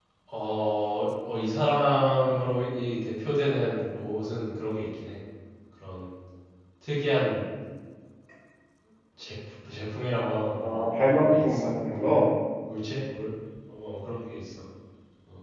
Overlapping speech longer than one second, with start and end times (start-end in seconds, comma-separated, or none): 10.6-12.3